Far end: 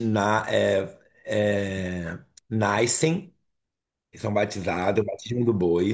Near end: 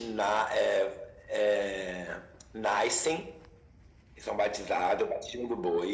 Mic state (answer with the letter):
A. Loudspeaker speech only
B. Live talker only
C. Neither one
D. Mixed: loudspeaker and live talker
A